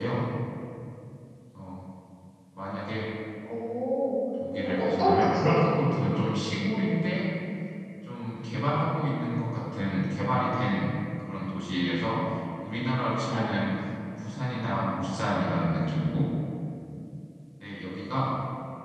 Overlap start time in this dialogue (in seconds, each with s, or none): 4.6 s